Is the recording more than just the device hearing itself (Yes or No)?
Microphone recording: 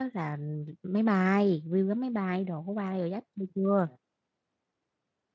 Yes